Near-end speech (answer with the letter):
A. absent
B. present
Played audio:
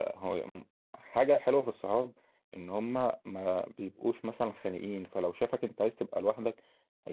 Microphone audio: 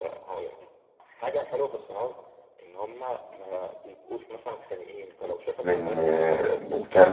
B